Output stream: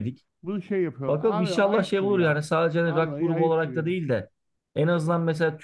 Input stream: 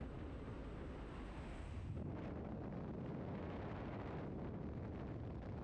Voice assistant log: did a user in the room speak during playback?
No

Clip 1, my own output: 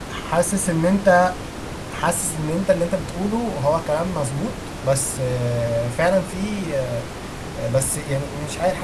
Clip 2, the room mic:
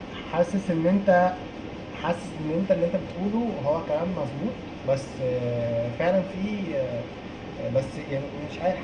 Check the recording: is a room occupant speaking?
No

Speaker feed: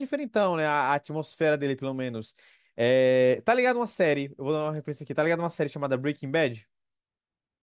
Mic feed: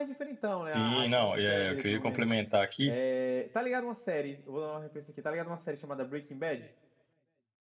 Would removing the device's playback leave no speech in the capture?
No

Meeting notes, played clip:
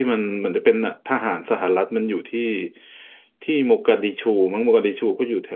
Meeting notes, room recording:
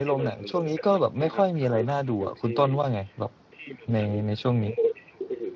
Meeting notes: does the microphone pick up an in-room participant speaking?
Yes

